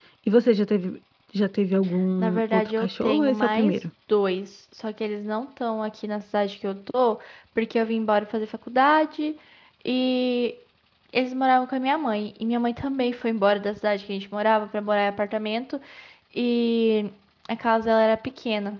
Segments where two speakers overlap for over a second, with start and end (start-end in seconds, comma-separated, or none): 2.2-3.7